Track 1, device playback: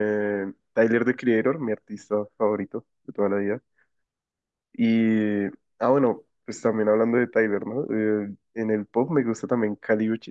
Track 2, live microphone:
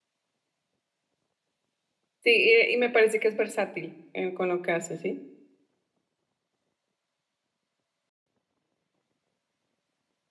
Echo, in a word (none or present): none